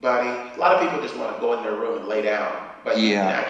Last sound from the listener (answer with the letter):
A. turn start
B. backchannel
B